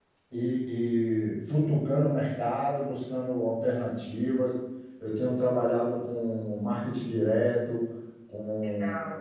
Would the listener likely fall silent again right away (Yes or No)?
Yes